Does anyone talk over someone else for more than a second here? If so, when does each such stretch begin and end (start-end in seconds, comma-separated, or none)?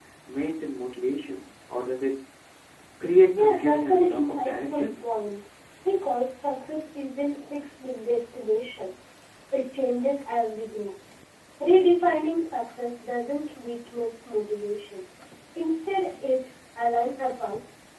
3.4-4.9